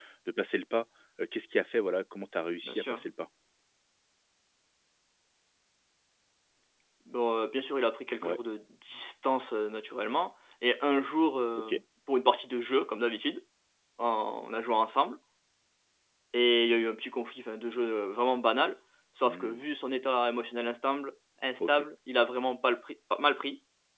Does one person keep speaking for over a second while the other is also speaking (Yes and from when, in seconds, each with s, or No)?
No